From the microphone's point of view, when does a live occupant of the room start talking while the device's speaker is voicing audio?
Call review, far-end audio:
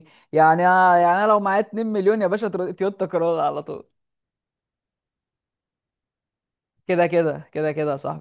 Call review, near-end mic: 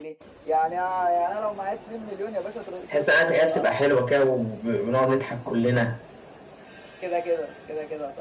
2.9 s

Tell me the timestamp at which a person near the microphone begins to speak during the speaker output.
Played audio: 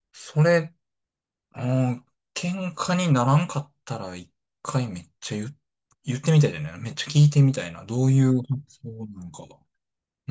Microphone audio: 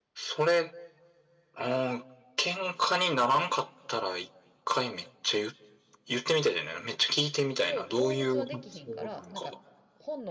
7.5 s

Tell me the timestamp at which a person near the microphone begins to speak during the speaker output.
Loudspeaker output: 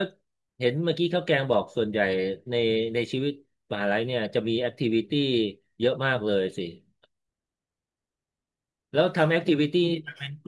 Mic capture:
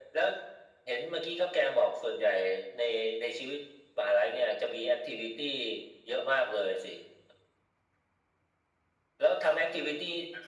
none

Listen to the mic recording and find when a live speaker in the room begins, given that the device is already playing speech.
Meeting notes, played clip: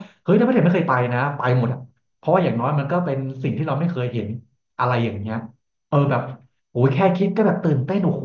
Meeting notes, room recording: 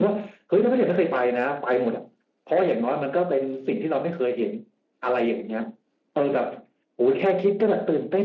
none

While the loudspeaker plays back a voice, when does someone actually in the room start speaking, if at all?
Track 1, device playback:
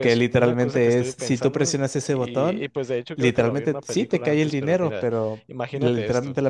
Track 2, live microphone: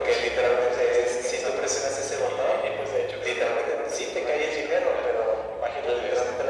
none

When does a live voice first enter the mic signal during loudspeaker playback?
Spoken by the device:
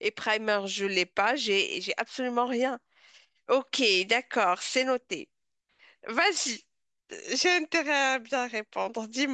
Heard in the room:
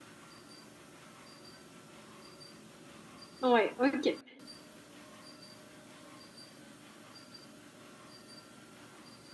3.4 s

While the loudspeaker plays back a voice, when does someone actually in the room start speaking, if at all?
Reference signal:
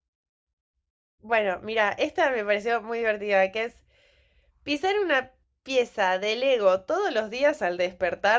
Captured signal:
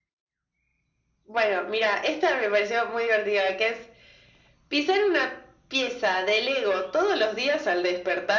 none

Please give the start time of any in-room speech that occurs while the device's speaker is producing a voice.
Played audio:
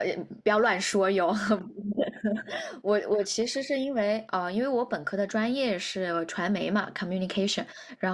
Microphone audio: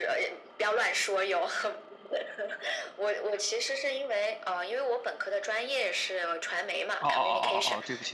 7.0 s

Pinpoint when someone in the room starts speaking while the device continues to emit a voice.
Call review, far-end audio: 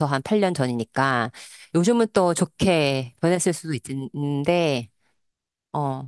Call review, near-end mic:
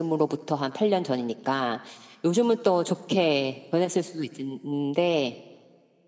none

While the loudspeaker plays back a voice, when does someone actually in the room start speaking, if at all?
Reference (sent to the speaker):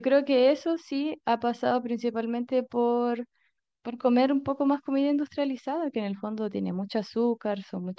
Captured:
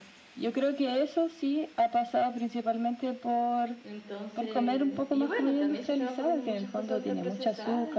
3.8 s

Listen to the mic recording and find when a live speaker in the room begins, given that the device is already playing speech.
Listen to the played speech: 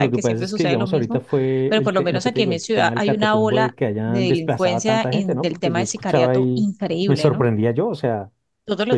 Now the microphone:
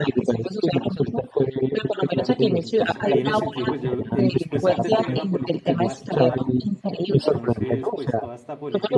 2.0 s

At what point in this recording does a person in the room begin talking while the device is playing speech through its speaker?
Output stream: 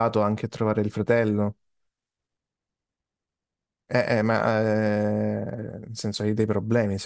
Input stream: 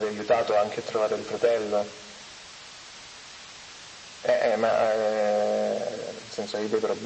none

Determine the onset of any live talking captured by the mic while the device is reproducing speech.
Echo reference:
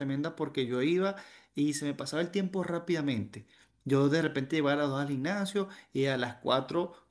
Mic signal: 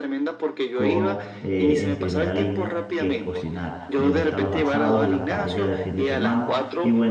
0.7 s

